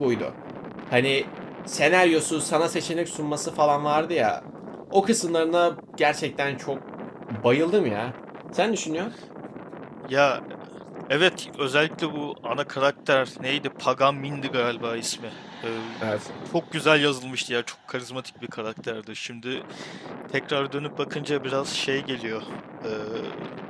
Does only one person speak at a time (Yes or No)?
Yes